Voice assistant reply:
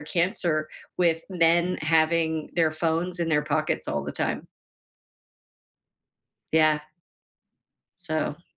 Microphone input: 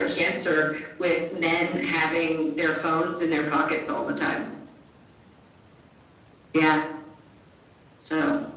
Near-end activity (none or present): none